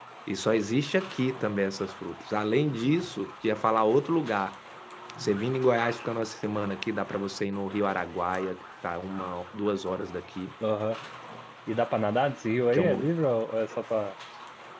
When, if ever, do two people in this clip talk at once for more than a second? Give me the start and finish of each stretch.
none

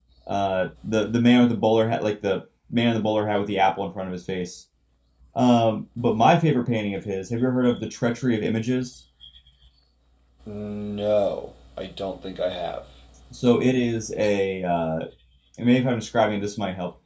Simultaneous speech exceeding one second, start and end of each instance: none

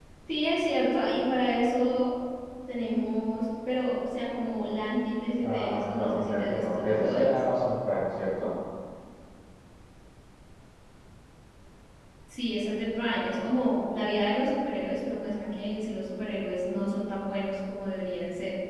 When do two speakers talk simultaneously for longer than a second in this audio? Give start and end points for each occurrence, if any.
5.5-7.4

